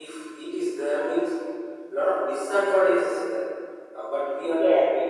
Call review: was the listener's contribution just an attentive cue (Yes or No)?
Yes